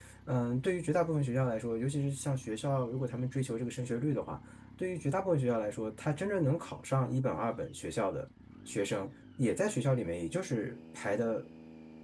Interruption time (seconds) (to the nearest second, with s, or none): none